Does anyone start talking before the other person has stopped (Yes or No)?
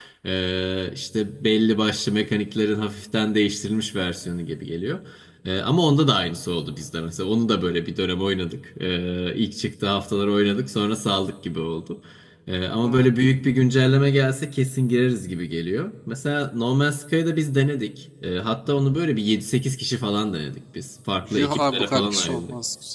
Yes